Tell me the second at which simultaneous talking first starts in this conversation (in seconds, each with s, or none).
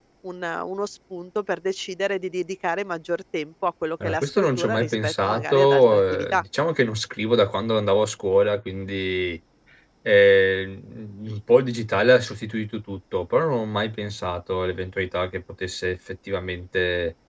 4.0 s